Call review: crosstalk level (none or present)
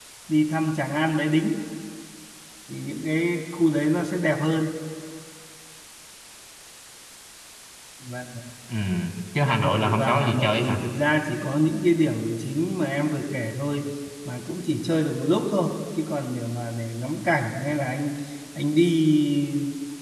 present